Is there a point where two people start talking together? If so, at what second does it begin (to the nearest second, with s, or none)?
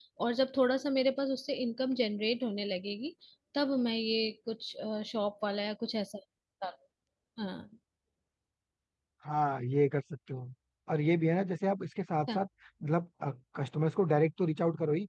none